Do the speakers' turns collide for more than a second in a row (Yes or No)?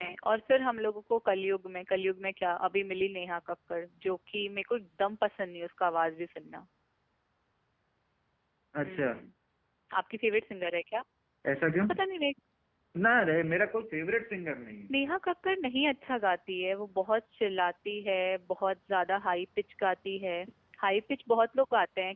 No